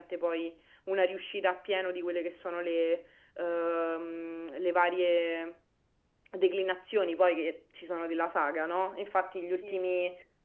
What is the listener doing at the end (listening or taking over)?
listening